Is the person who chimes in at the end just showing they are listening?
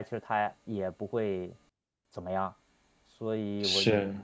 Yes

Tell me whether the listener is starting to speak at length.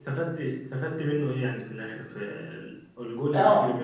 Yes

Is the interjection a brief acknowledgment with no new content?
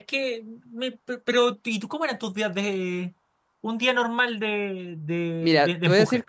No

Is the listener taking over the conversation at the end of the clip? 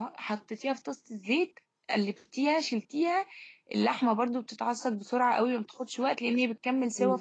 Yes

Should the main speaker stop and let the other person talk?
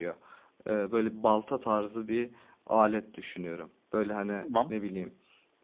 No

